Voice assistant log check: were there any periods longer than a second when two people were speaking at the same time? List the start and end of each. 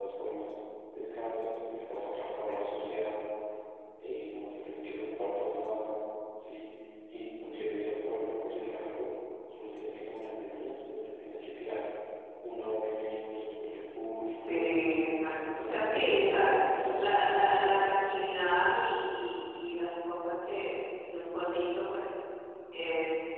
15.2-16.5

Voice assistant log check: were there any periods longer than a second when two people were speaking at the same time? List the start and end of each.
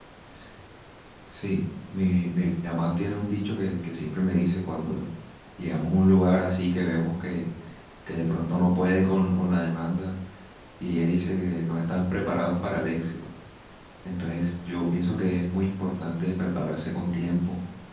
none

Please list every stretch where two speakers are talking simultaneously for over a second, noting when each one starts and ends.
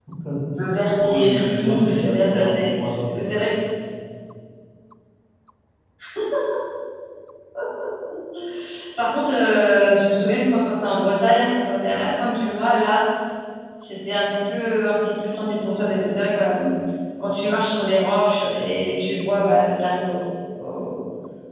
1.0-2.6

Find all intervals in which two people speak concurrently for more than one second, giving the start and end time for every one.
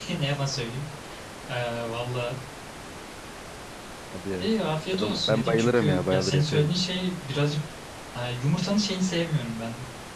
4.9-6.7

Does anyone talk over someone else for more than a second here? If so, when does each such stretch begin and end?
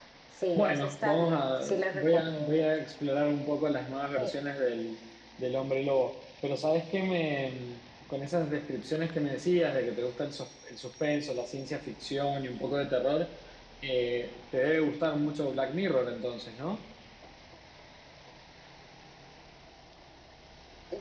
0.6-2.6

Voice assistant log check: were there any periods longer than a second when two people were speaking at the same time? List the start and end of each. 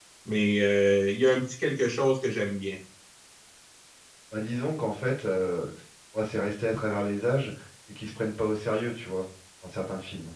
none

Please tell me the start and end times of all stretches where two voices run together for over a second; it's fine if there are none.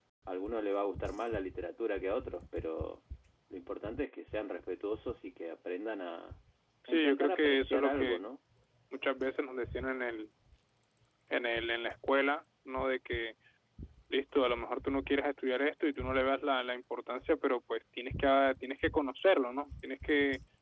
6.9-8.2

